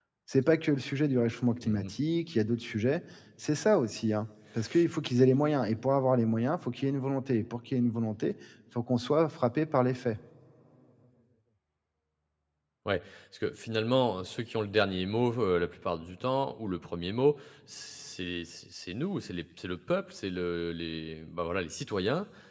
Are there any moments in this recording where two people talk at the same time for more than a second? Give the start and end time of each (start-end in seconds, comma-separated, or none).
none